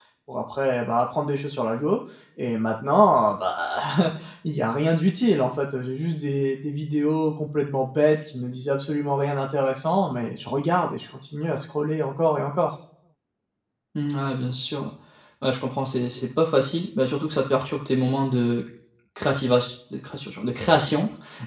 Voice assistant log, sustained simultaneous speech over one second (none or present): none